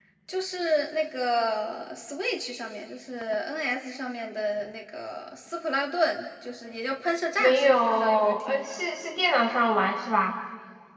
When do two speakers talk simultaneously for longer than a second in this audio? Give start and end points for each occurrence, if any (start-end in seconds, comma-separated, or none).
7.4-8.8